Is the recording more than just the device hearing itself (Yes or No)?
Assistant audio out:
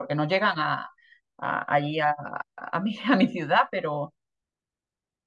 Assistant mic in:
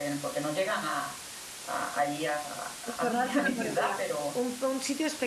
Yes